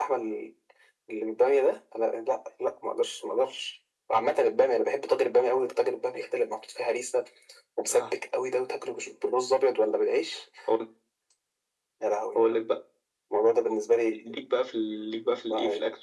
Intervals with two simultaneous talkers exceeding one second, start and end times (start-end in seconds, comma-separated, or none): none